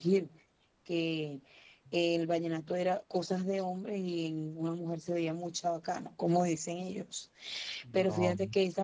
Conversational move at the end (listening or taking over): listening